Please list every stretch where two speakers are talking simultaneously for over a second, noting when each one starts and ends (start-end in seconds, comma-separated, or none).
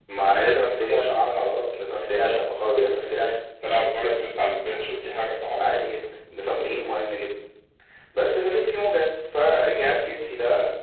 none